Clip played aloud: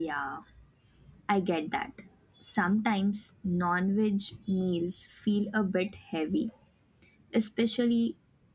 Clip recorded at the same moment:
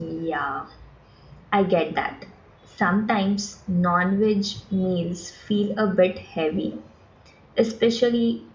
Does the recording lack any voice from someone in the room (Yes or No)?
Yes